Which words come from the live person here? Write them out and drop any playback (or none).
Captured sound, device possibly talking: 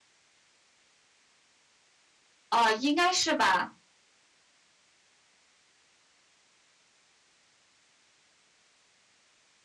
哦，应该是吧，